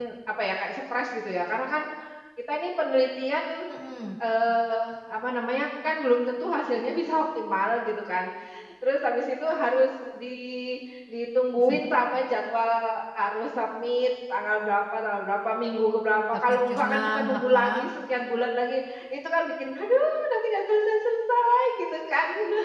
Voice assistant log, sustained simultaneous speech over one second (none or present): present